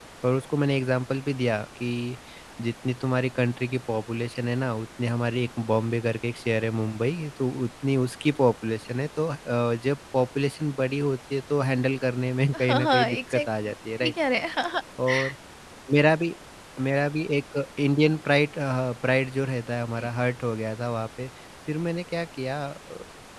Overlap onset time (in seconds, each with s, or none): 12.5 s